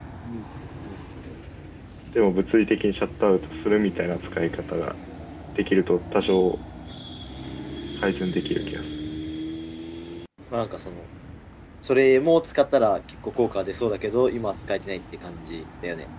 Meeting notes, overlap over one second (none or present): none